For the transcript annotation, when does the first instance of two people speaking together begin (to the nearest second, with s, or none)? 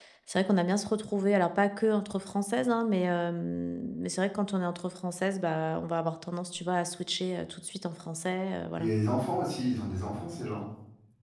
none